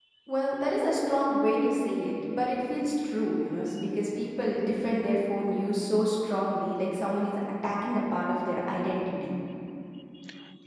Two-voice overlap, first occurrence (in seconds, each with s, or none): none